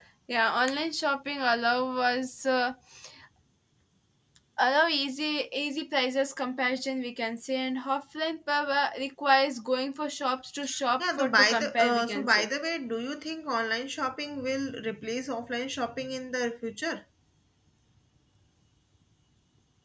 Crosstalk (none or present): present